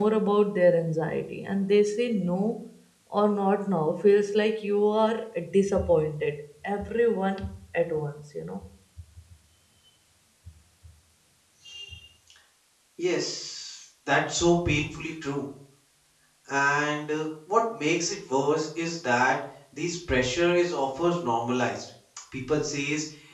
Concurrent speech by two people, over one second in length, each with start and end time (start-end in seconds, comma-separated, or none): none